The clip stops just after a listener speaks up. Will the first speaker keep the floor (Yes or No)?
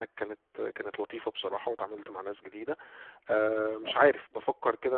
Yes